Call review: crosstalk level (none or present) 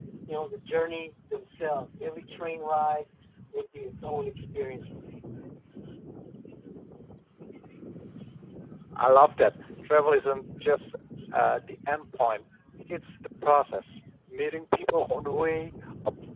none